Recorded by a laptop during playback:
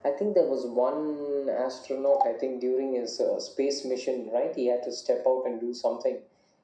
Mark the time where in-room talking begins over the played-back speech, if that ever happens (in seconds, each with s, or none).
none